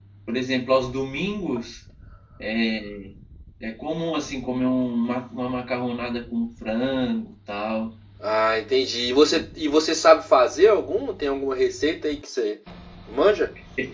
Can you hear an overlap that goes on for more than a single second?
No

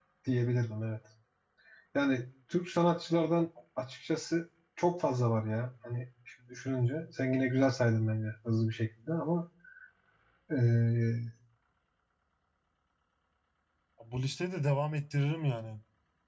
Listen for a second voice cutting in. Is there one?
No

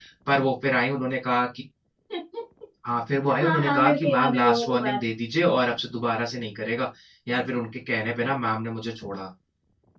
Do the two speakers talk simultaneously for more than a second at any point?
Yes, from 3.4 s

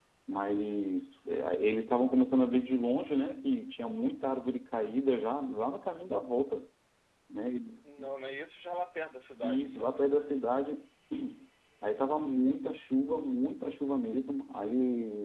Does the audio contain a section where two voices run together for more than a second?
No

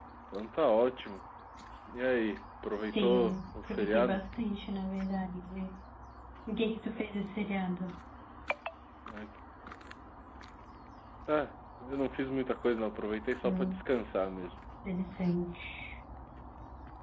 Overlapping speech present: Yes, from 2.8 s

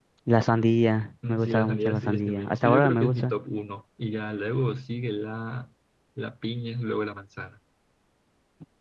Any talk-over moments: Yes, from 1.3 s

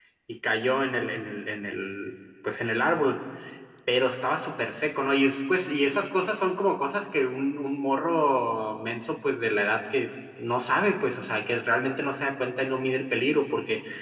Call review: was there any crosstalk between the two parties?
No

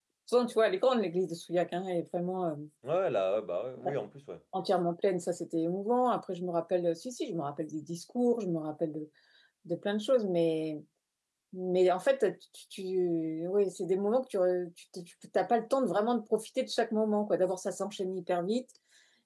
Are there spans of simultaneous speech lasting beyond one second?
No

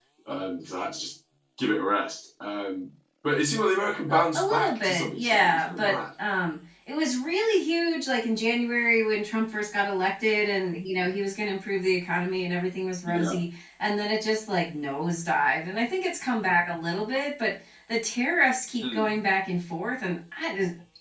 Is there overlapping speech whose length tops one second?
Yes, from 4.1 s

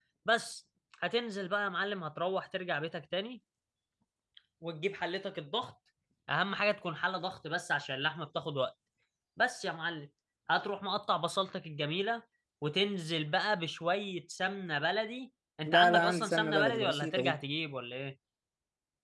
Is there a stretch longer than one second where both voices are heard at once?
Yes, from 15.7 s

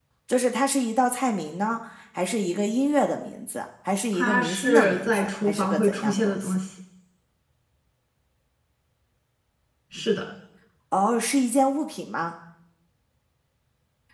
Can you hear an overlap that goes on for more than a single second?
Yes, from 4.1 s

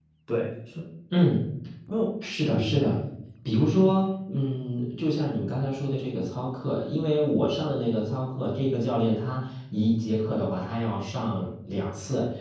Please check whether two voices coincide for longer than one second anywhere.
No

